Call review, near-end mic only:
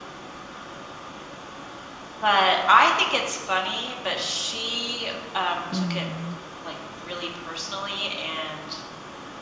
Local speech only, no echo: Mm.

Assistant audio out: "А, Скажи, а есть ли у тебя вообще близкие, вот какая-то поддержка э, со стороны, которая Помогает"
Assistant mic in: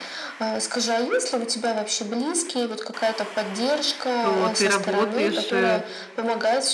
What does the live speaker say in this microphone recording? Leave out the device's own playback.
что ты работаешь, э,

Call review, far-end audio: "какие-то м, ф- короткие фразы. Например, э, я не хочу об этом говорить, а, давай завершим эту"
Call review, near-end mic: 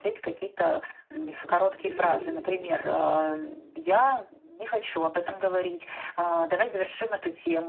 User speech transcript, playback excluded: э, крити- кри- мысли

